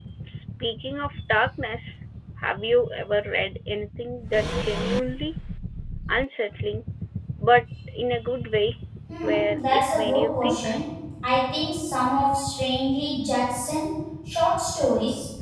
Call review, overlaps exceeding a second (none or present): present